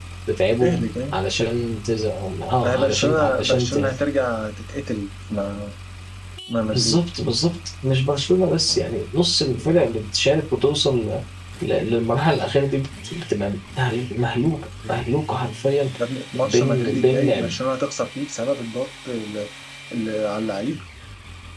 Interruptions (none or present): present